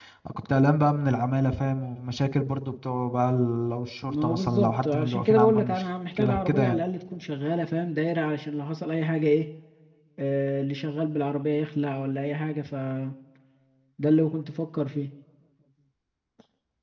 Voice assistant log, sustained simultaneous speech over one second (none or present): present